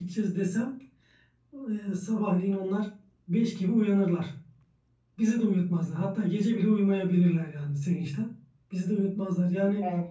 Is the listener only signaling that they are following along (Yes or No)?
Yes